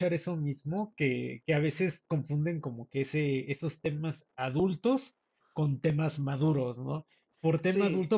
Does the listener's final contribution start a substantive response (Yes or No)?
No